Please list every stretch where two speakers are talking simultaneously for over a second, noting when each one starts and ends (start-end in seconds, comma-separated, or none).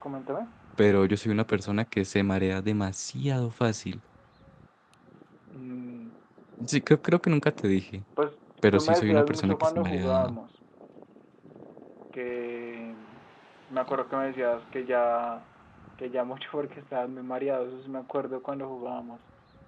8.7-10.4